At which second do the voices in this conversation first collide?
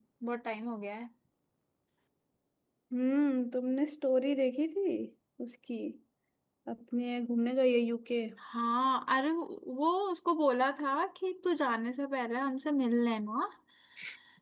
none

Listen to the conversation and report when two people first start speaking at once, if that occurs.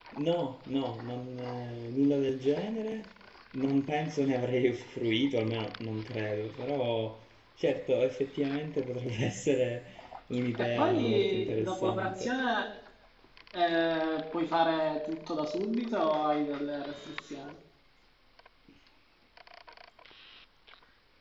10.6 s

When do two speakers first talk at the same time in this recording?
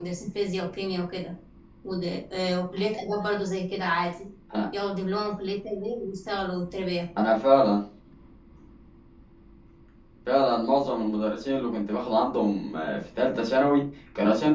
none

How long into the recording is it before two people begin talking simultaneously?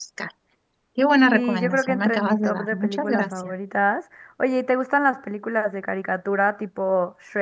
1.3 s

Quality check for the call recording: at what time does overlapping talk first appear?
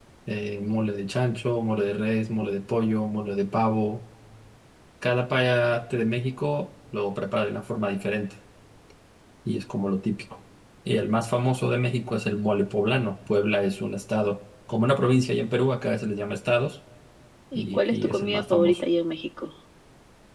17.6 s

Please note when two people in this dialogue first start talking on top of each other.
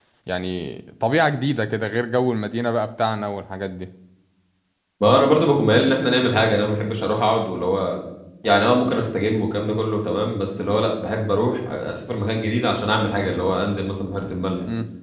none

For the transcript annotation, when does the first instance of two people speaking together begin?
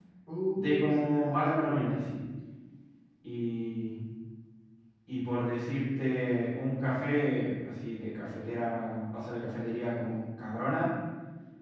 0.5 s

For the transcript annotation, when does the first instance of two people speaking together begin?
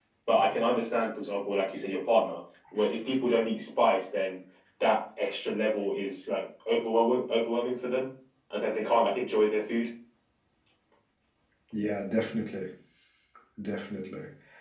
none

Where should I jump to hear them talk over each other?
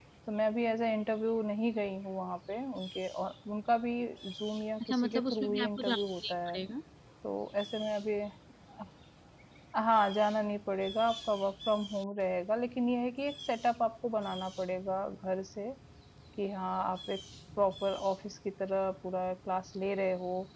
4.8 s

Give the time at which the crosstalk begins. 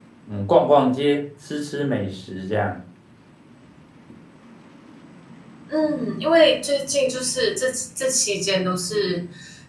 none

